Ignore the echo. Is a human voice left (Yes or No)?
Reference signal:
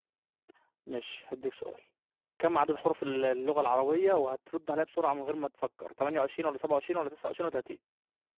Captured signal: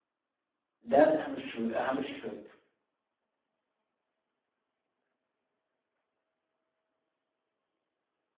Yes